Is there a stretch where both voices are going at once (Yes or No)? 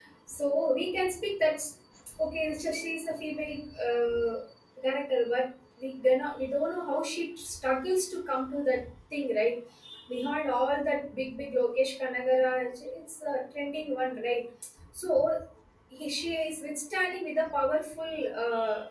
No